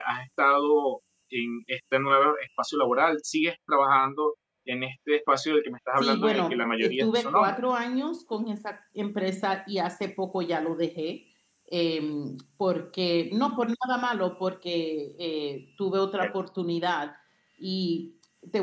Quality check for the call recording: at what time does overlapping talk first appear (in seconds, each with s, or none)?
6.0 s